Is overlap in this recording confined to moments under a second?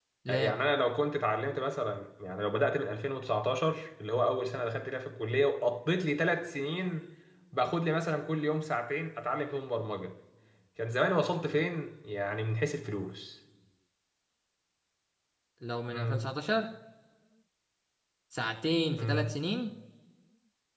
Yes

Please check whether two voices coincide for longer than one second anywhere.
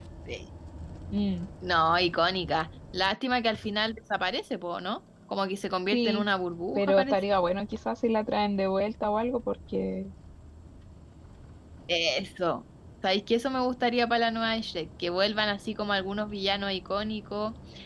No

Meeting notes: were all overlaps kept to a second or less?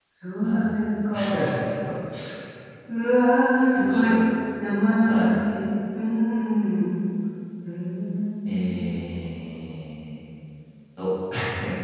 Yes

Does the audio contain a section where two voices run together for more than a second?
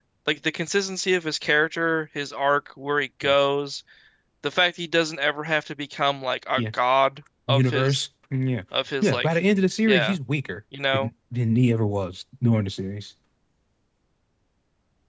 No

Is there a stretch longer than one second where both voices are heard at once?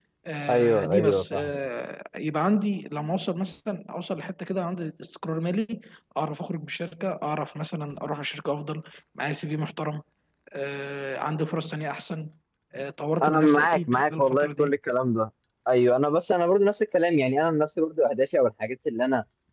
Yes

